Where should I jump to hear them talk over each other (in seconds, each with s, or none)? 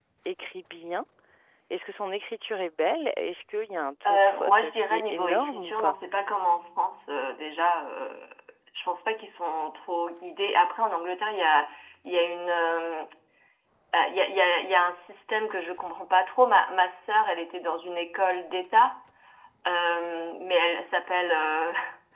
4.0 s